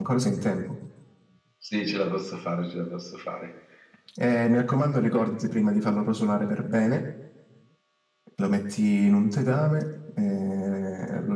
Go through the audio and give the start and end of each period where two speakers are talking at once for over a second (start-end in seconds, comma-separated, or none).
none